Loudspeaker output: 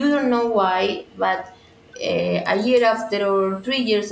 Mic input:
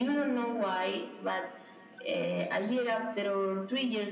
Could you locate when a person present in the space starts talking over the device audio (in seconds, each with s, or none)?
none